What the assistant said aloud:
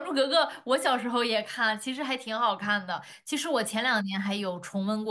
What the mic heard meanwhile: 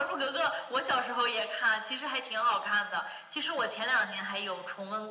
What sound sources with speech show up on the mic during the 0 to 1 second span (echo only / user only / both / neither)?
echo only